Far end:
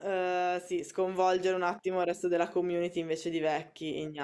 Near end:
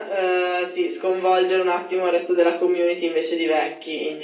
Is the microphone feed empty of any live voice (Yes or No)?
Yes